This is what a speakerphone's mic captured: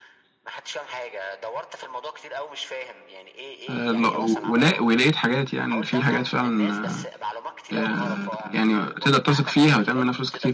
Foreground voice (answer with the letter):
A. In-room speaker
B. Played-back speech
A